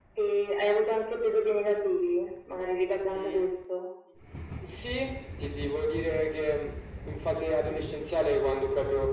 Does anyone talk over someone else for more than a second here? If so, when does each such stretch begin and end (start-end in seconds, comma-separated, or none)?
none